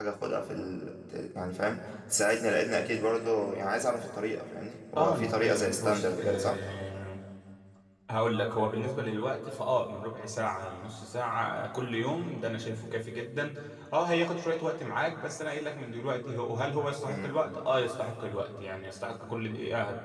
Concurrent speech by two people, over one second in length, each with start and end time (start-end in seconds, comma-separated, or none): 5.0-6.6